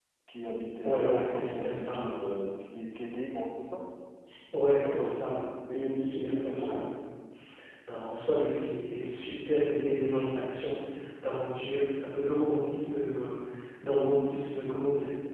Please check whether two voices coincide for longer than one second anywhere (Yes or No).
Yes